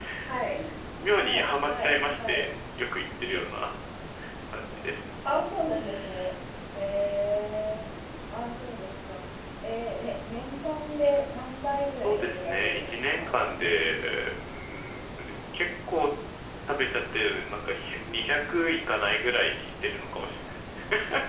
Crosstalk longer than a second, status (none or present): present